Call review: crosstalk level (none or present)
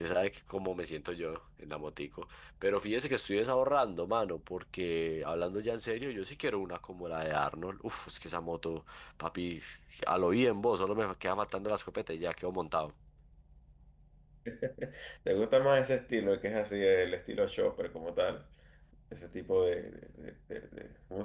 none